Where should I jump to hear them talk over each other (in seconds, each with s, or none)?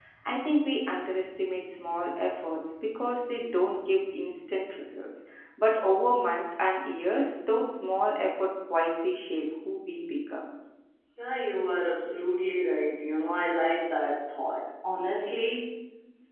none